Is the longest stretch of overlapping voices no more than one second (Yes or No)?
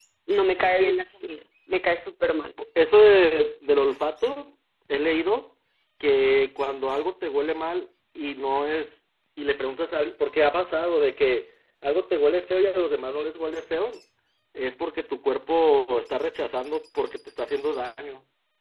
Yes